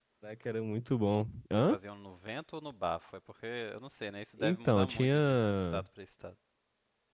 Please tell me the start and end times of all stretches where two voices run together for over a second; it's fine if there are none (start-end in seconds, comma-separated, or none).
4.4-5.8